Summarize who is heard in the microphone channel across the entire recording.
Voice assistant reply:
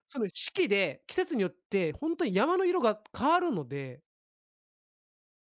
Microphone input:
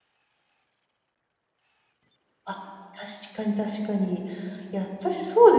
user only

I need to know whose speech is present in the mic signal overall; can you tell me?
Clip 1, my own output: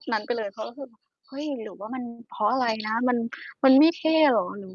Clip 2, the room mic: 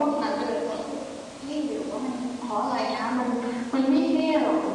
echo only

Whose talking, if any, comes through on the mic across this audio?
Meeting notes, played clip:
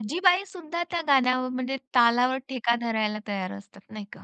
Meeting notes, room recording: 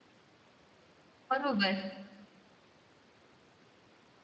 user only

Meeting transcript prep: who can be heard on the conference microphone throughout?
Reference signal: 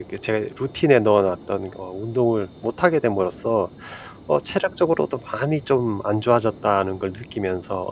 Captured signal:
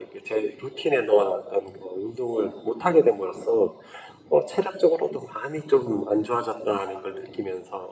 echo only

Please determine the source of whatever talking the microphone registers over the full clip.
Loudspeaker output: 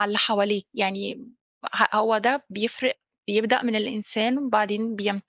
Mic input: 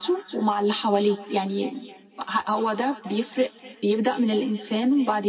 echo only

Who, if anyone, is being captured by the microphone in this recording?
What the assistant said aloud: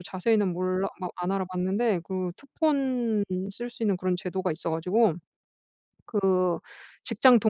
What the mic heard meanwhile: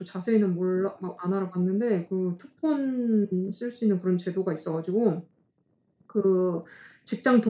echo only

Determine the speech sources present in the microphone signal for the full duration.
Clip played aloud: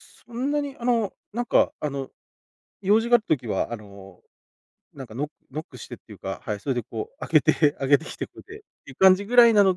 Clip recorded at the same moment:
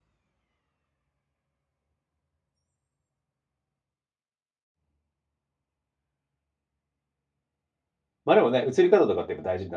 user only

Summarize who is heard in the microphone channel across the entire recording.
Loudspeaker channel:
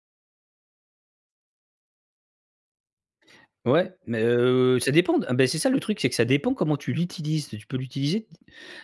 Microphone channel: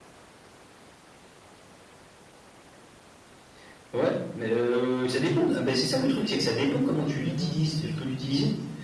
both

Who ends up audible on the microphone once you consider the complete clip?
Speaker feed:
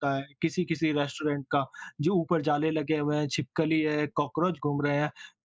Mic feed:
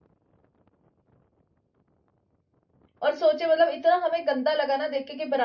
user only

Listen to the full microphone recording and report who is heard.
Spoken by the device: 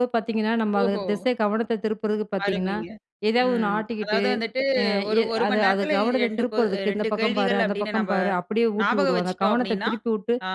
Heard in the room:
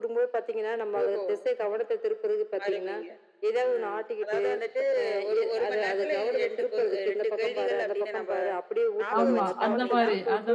both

